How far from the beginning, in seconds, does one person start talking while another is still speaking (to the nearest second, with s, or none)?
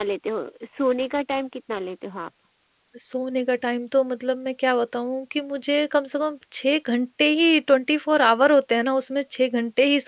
none